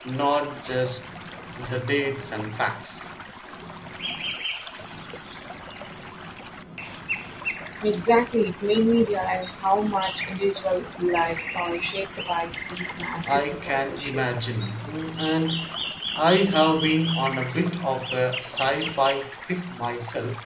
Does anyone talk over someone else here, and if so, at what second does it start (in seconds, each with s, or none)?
13.3 s